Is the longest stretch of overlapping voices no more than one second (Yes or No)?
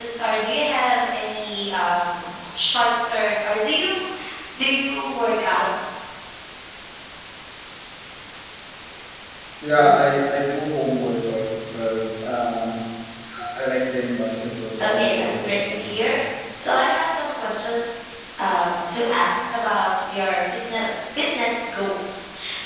No